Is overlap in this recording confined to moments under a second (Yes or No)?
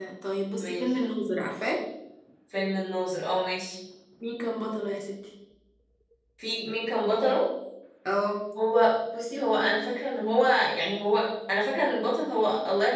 Yes